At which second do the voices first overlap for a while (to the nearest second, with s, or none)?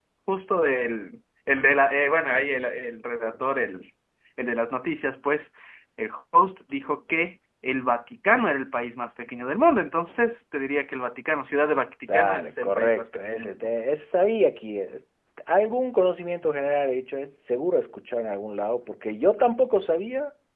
12 s